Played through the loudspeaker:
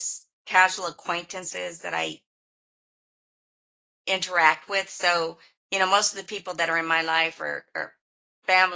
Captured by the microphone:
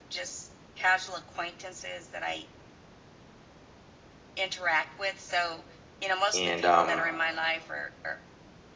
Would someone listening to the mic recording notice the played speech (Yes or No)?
Yes